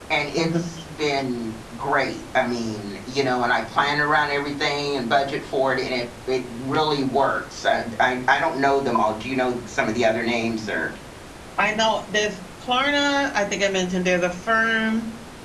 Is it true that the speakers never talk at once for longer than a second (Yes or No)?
Yes